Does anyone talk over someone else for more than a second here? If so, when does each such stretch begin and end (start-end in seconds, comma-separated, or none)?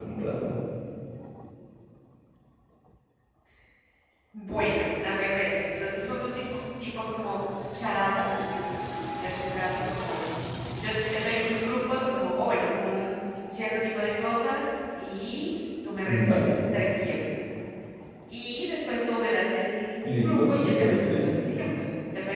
20.0-21.3